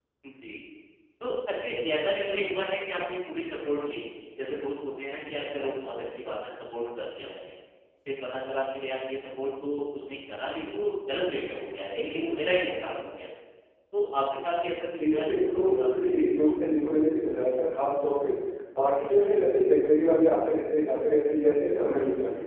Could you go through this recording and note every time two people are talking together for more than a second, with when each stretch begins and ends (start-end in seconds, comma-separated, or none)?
14.9-16.1